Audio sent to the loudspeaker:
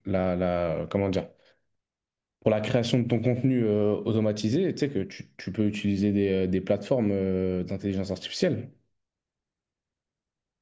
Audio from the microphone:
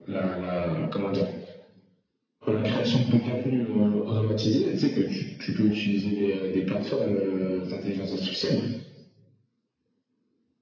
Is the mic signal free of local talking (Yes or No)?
Yes